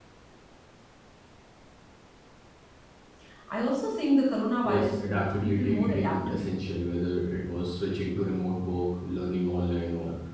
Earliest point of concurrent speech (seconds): 4.6 s

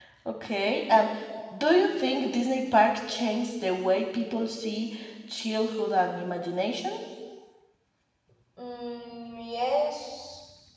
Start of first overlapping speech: none

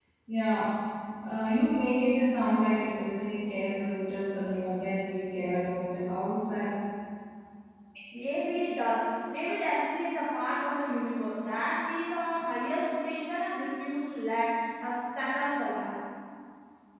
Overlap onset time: none

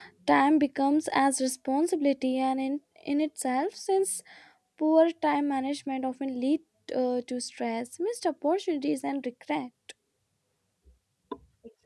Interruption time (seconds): none

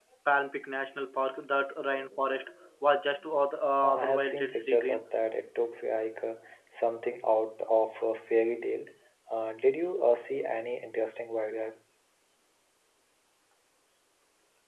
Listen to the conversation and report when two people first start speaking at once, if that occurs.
3.8 s

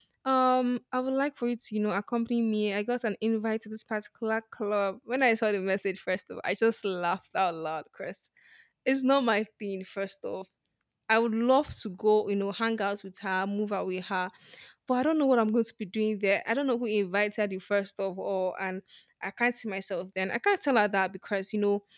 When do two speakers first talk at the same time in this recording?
none

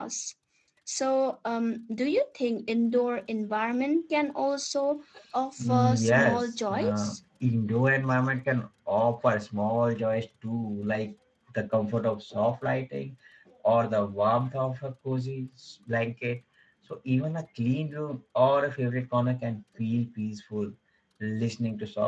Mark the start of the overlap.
5.6 s

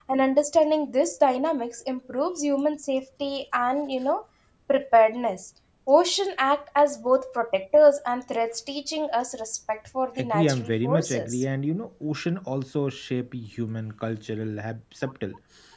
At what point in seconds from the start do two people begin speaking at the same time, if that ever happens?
10.2 s

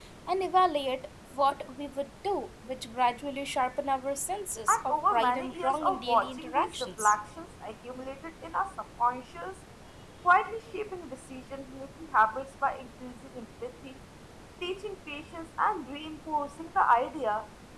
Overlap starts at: 4.7 s

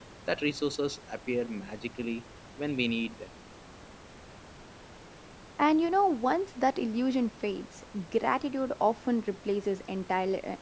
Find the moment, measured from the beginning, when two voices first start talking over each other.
none

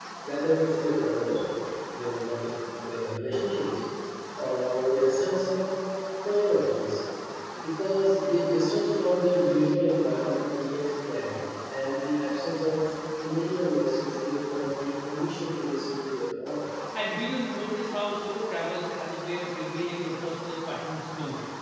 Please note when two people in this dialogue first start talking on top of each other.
none

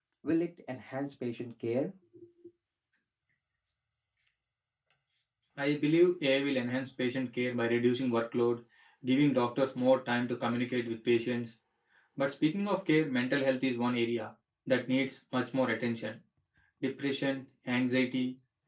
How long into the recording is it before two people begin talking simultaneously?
none

